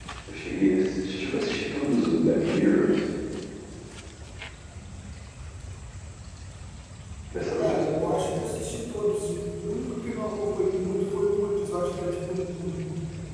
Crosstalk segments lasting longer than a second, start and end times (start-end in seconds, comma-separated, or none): none